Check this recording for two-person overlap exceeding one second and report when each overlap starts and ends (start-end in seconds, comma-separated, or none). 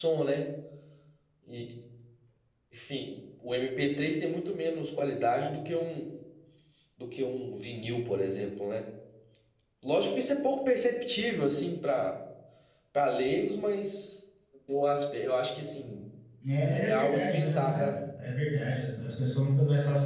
16.7-17.9